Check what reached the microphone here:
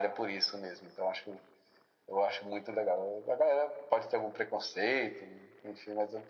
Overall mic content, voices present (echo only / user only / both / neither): echo only